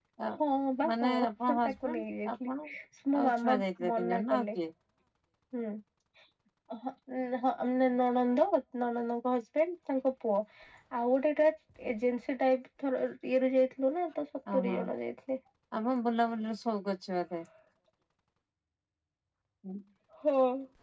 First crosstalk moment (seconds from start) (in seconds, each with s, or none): 0.9 s